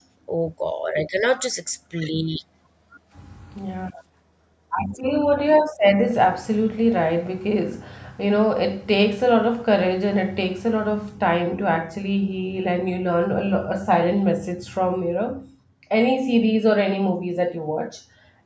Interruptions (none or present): none